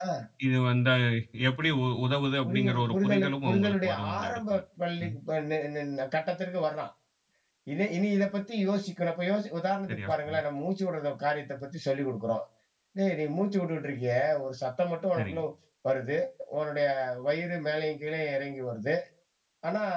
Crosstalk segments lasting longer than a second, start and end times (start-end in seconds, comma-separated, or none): 2.4-4.6